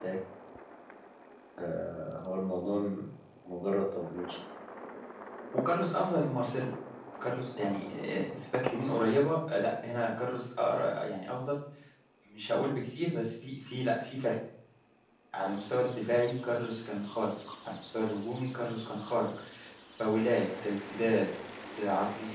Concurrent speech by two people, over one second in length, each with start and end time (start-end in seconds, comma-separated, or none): none